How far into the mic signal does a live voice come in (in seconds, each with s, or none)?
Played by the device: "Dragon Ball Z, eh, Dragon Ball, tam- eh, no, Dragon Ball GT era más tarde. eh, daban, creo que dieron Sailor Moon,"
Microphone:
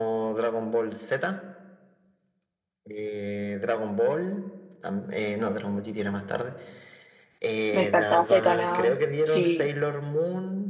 7.7 s